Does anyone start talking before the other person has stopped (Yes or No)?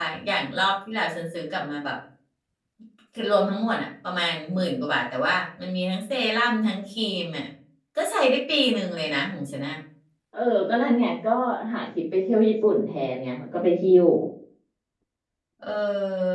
No